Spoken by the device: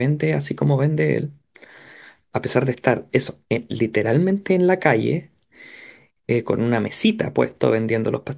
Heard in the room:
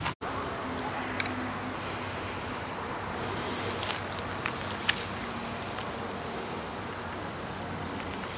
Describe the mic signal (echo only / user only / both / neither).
neither